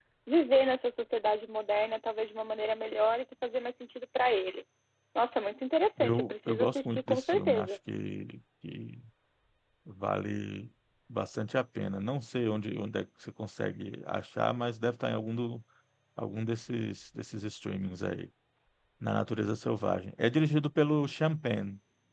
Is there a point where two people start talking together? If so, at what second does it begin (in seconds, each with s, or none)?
6.0 s